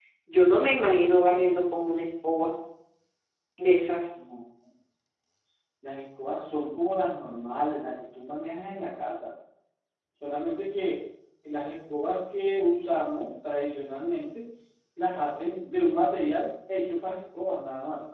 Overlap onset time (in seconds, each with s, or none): none